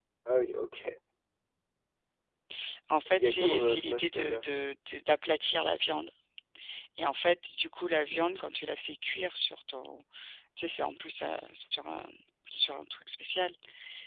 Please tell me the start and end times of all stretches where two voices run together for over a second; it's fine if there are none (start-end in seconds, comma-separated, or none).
3.1-4.4